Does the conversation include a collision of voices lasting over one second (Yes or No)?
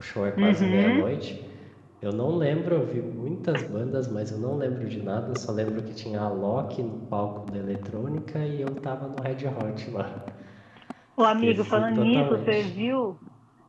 Yes